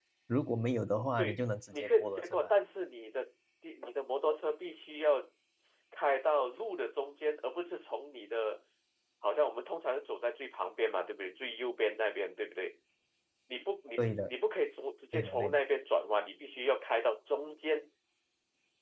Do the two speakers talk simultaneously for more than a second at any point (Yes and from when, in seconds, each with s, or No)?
Yes, from 1.2 s